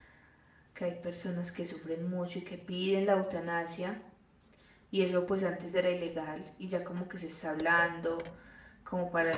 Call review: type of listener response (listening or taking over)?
listening